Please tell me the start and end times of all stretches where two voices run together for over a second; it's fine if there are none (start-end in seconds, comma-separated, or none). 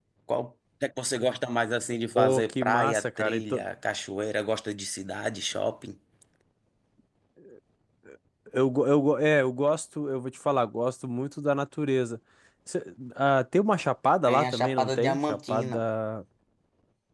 2.2-3.4, 14.3-15.8